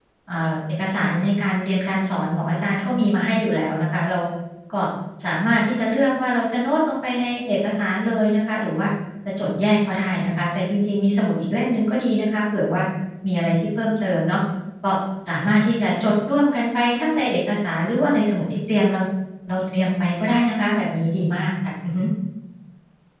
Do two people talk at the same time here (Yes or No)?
No